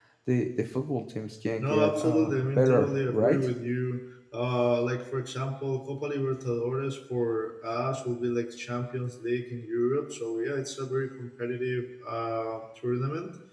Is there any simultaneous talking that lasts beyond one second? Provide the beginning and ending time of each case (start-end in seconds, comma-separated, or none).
1.6-3.5